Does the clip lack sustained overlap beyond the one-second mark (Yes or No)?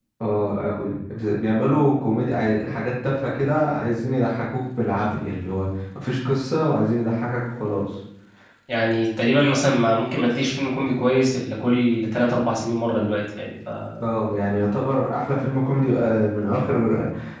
Yes